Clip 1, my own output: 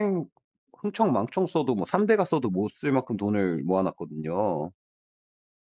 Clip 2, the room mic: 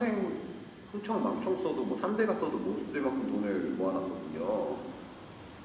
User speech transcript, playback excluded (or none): none